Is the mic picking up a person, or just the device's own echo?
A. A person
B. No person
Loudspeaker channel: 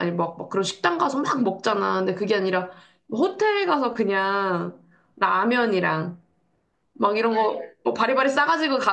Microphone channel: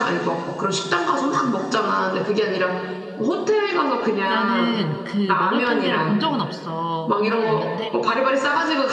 A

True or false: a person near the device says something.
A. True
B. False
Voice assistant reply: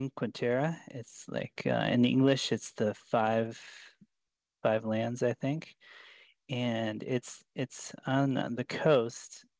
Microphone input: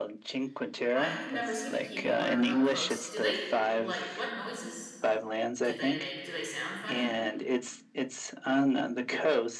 A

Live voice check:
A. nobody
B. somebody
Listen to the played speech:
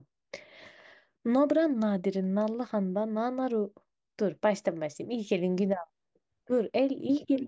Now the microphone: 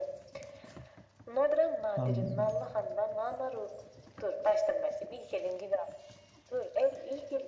B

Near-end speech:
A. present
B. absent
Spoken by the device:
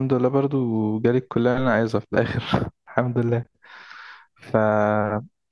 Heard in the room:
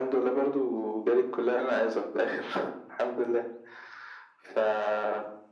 B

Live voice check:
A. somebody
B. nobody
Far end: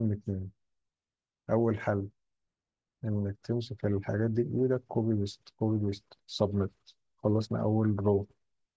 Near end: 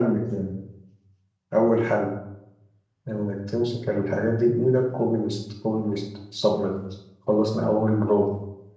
B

